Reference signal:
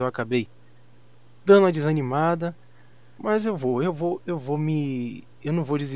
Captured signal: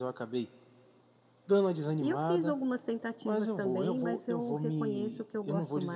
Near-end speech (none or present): present